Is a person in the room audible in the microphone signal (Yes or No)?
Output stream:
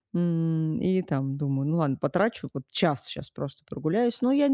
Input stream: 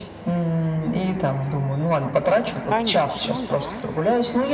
Yes